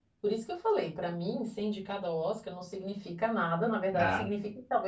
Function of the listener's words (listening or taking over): listening